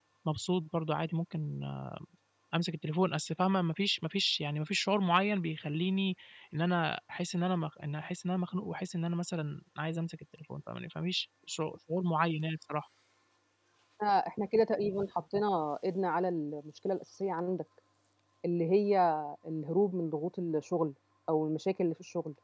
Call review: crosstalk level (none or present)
none